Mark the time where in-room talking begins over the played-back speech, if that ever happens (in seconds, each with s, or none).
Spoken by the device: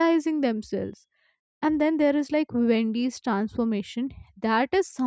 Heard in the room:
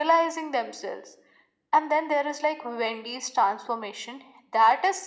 none